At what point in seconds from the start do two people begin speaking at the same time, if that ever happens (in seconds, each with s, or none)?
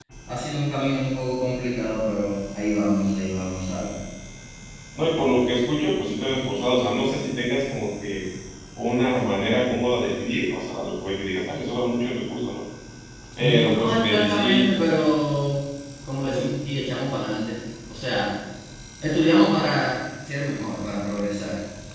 13.4 s